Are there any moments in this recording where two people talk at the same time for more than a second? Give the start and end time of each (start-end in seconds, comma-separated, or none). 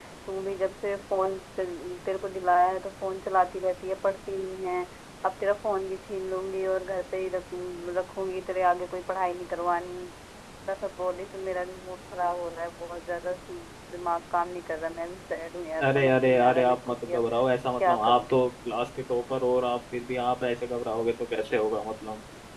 15.9-17.2